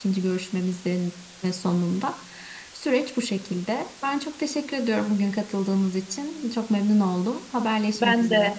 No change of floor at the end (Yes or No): No